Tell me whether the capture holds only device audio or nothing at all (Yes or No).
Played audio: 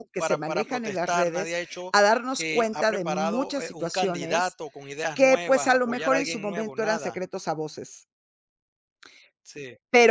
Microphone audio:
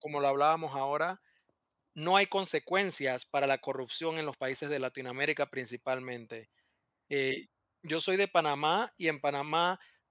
No